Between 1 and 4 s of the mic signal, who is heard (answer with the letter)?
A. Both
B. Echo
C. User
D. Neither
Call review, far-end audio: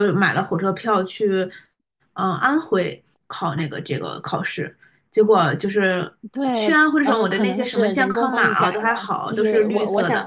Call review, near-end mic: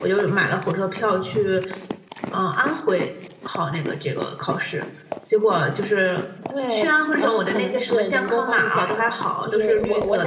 B